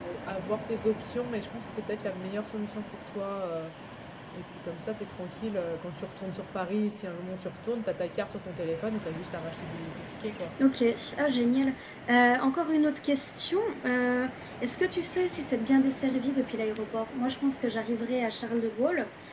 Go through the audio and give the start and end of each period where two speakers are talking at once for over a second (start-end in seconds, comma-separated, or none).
none